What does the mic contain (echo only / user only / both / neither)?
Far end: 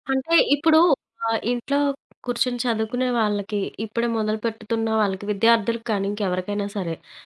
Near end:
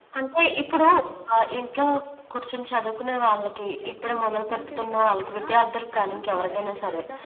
both